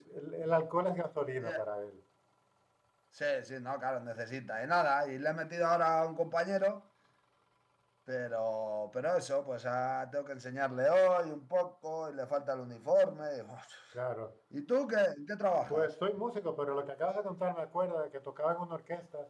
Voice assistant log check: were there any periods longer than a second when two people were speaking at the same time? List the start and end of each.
none

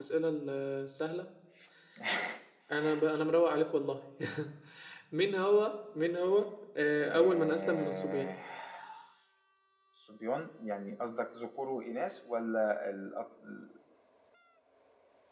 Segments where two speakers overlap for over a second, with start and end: 7.0-8.3

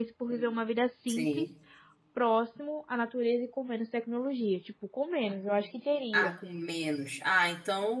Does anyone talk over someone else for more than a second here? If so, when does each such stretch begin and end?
none

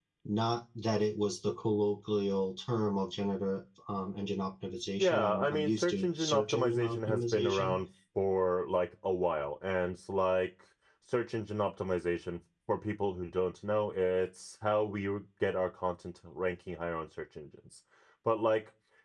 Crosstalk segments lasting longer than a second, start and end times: 5.0-7.8

